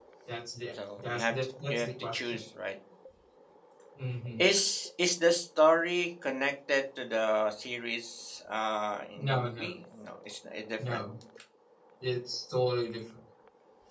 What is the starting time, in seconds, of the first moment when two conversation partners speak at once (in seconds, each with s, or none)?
1.0 s